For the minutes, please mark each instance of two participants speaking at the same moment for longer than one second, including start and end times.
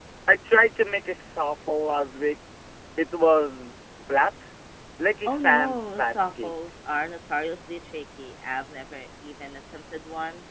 5.3-6.5

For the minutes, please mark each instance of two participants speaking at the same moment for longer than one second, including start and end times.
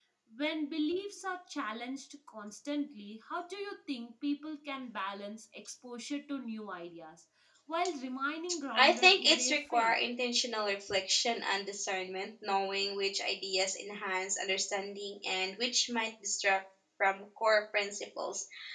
8.7-9.9

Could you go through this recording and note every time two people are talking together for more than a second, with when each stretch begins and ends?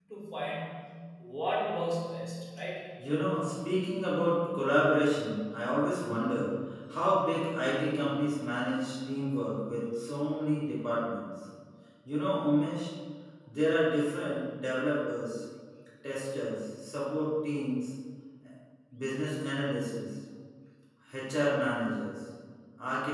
none

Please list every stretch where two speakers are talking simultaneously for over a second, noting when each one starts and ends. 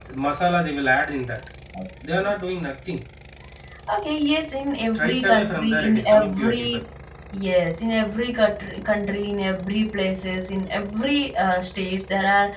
5.0-6.8

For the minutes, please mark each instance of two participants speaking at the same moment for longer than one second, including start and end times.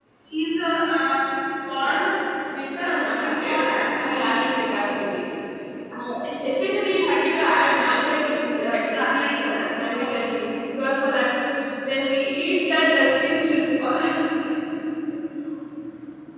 2.8-4.4

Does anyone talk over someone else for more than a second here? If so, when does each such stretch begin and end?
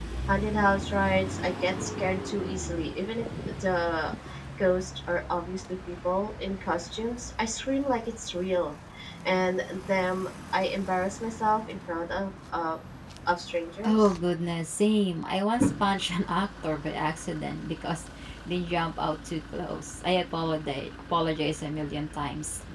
none

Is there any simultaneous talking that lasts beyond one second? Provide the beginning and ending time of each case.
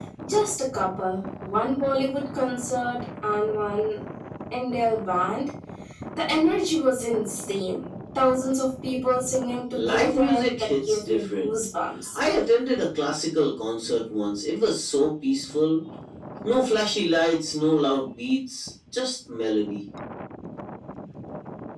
9.8-11.5

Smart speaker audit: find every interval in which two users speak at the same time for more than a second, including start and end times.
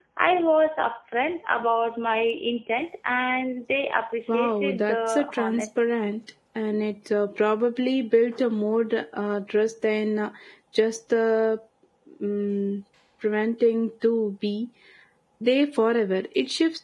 4.3-5.7

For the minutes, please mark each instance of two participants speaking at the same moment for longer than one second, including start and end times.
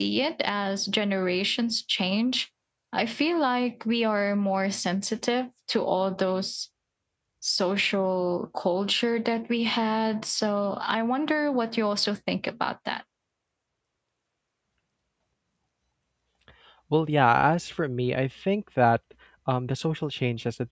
none

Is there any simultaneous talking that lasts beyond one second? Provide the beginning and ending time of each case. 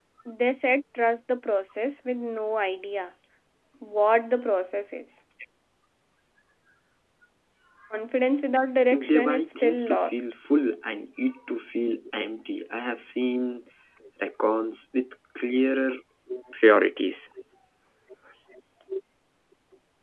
8.9-10.2

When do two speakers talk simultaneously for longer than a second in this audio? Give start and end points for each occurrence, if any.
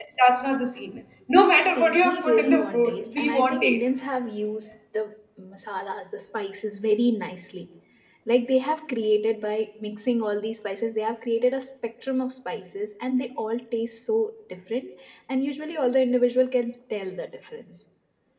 1.8-3.9

